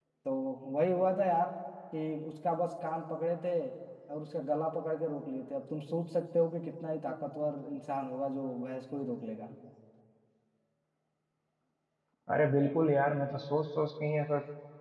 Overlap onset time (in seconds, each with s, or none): none